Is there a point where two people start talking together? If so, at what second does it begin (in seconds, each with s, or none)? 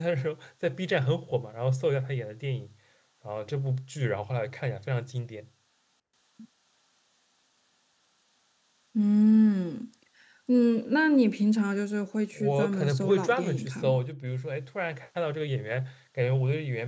12.4 s